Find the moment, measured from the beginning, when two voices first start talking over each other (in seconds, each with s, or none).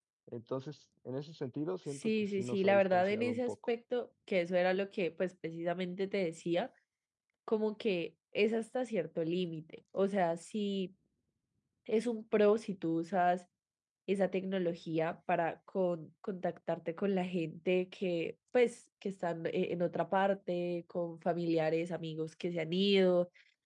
1.9 s